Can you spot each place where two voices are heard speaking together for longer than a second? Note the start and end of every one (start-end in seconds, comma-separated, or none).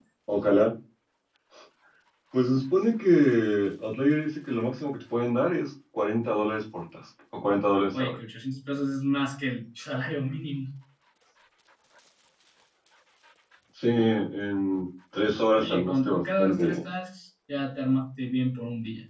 15.6-16.8